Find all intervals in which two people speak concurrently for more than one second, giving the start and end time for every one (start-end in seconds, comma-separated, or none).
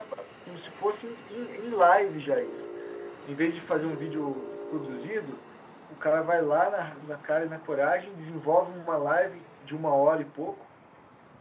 none